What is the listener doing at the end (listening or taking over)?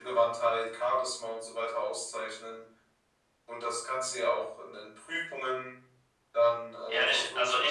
taking over